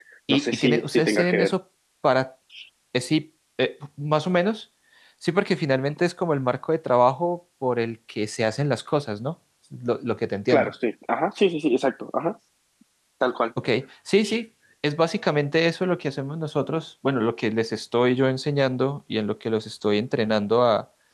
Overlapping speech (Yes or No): Yes